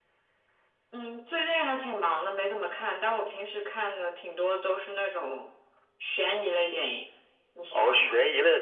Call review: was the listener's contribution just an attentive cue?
No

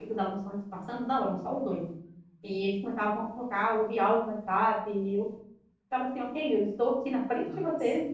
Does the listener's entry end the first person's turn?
No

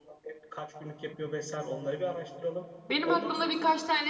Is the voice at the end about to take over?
Yes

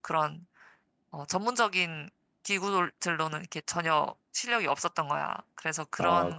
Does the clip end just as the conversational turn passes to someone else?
No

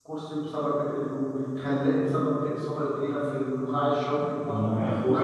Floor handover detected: Yes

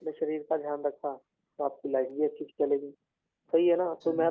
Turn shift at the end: No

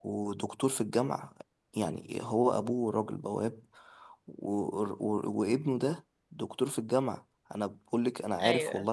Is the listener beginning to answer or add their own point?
No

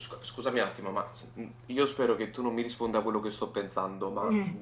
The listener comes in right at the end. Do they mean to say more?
No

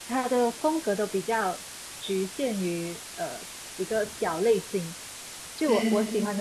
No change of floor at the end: Yes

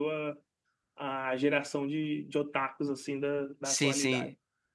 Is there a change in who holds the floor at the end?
Yes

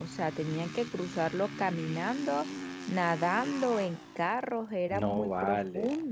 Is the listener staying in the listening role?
No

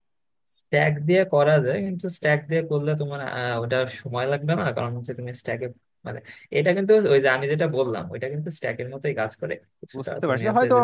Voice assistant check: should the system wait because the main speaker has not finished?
No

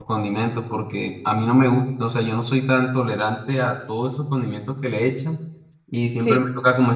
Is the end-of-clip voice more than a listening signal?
No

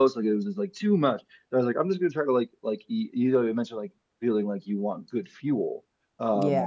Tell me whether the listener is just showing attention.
Yes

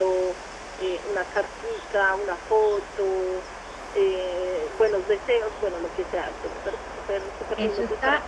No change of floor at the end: No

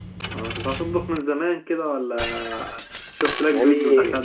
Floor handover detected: Yes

